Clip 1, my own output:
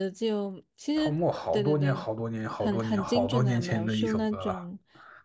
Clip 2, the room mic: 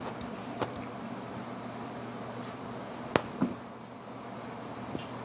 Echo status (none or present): none